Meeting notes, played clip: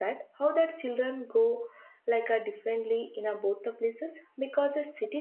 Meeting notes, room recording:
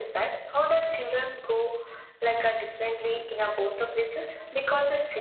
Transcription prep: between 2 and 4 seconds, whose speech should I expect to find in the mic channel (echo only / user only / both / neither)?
echo only